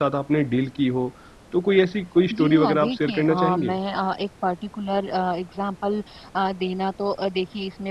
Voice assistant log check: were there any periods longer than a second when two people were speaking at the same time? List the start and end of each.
2.3-3.8

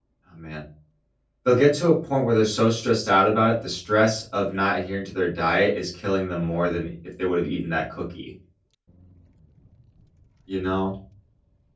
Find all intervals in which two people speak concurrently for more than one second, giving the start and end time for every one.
none

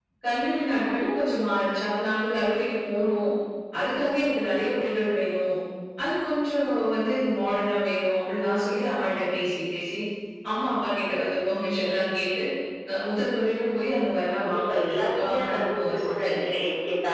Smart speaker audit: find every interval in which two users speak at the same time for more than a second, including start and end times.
14.4-16.5

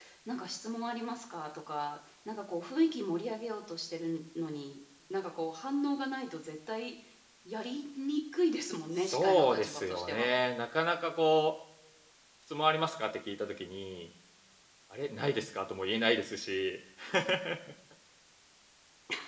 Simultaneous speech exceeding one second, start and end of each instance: 9.0-10.3

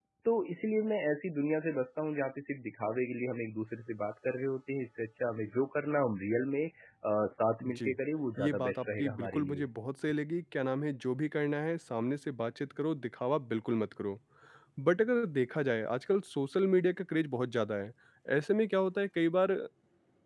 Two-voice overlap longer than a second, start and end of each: 8.4-9.7

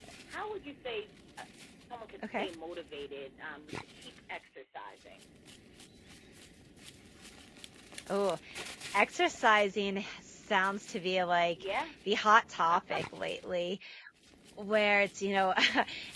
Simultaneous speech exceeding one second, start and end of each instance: none

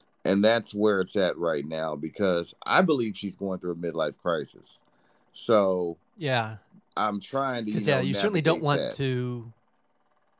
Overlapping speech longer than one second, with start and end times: 7.7-8.9

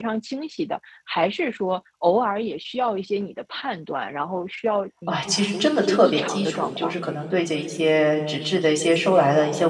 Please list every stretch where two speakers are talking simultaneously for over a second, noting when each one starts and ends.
5.1-6.9

